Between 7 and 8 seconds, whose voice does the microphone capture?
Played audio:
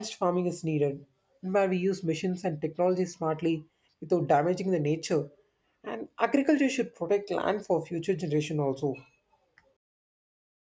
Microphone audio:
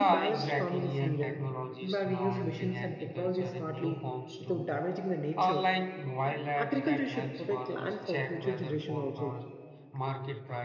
both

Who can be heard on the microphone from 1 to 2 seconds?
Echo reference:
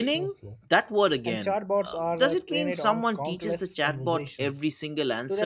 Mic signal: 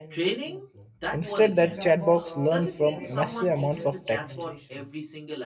both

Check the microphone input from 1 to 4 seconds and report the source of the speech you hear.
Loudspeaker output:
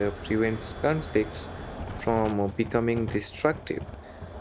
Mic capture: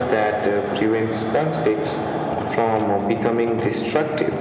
echo only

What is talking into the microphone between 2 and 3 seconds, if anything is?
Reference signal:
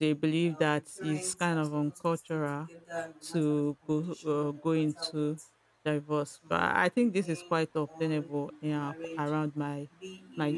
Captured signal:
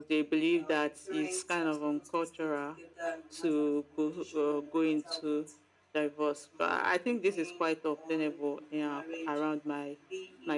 echo only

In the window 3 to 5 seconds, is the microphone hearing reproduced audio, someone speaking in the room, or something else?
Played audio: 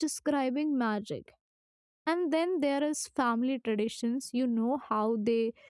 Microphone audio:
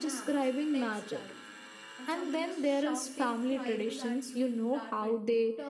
both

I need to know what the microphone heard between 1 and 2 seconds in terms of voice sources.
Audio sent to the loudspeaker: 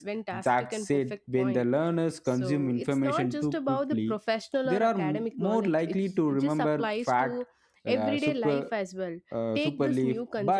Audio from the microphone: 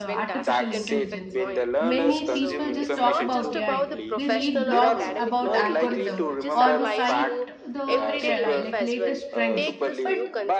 both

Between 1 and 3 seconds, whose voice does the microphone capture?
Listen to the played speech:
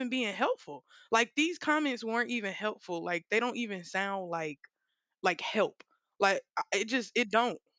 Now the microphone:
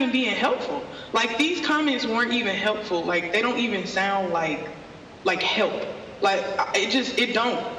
echo only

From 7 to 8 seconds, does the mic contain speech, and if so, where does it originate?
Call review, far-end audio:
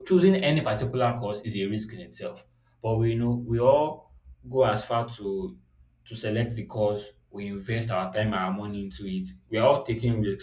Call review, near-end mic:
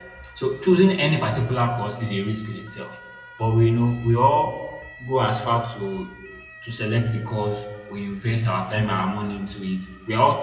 echo only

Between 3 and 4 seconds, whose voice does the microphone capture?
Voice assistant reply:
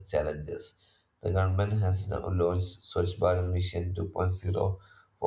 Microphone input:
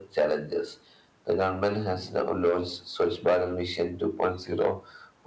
echo only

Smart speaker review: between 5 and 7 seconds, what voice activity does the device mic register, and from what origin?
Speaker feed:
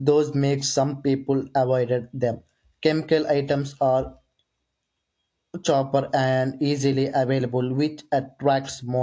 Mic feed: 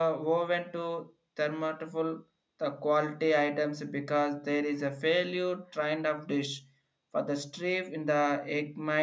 user only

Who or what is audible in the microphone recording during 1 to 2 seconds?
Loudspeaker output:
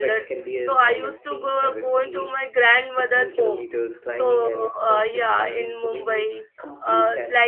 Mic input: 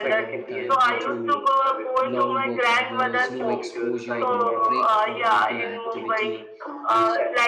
both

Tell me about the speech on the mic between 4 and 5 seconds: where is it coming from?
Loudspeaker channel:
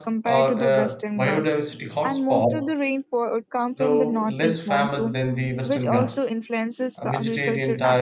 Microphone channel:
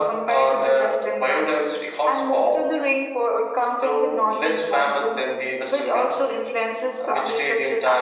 echo only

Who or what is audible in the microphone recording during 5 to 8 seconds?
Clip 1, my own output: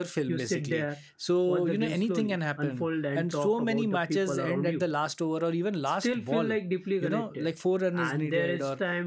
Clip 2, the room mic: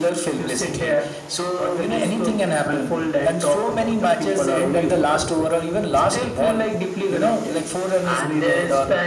echo only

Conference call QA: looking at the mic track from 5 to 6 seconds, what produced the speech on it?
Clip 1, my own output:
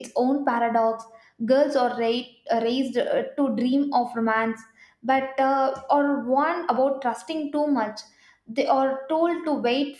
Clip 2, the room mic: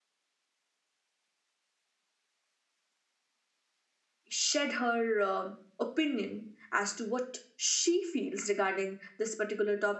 user only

